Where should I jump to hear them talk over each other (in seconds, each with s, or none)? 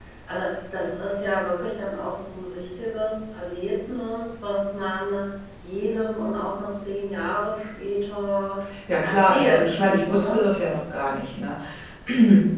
9.0 s